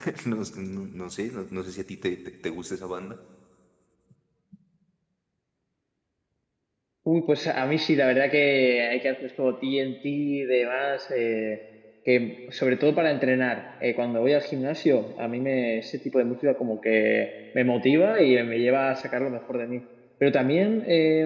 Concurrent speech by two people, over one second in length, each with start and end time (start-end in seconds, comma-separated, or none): none